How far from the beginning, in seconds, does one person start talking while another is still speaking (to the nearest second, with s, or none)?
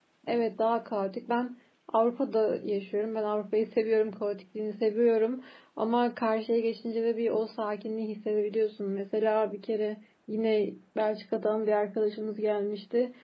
none